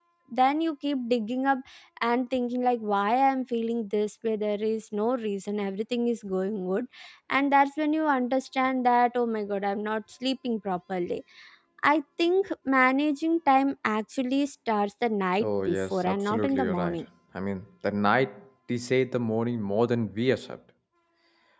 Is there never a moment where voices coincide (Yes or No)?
No